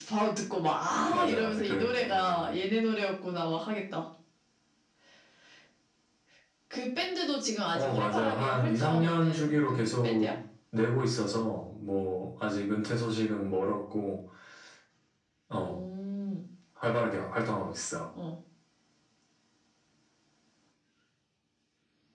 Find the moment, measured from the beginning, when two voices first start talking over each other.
1.1 s

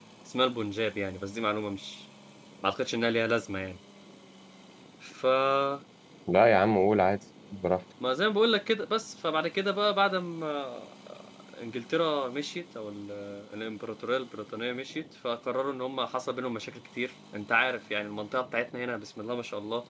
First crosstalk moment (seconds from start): none

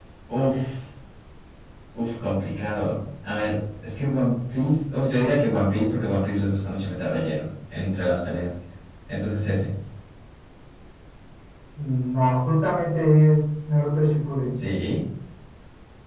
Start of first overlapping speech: none

